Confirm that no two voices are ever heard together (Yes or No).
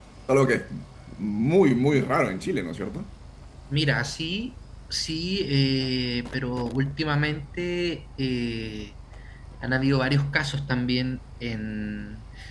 Yes